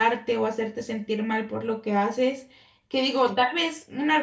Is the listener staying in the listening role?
Yes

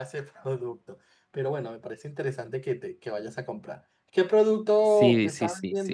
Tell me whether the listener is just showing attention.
No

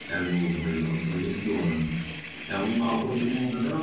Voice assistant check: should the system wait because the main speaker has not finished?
Yes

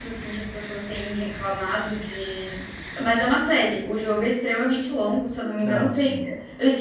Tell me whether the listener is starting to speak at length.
No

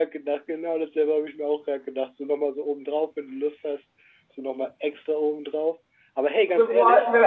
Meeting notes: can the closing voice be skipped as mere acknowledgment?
No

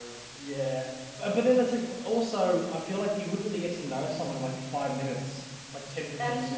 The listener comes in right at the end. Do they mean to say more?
No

